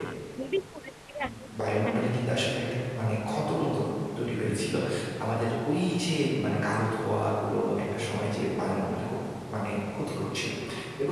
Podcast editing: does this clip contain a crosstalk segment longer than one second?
No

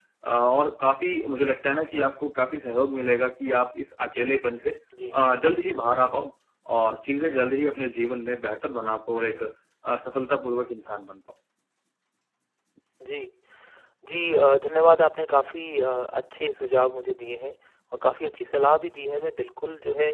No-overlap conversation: Yes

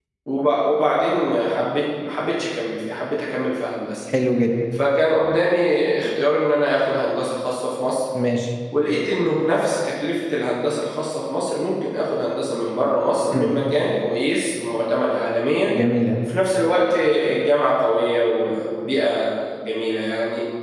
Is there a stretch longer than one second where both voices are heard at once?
No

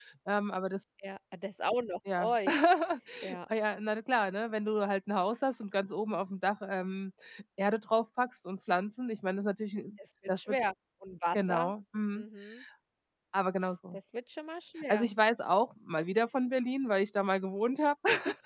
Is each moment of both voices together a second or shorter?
Yes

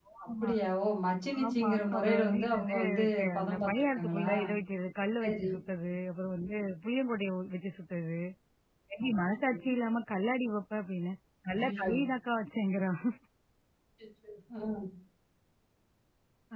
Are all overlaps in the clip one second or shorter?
No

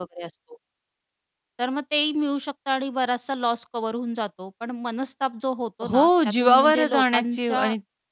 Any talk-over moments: Yes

